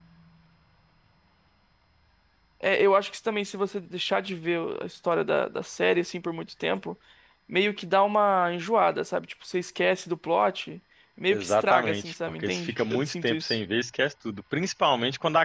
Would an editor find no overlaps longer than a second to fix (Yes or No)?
No